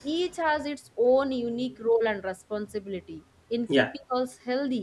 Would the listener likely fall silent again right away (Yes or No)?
Yes